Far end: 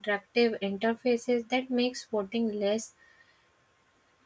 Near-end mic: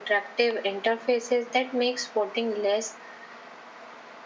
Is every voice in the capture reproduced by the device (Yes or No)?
Yes